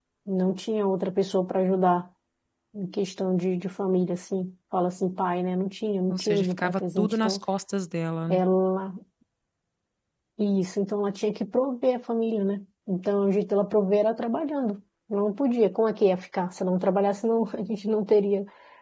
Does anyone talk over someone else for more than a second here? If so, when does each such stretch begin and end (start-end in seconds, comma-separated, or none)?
6.1-7.4